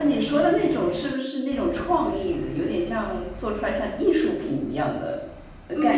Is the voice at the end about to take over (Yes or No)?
Yes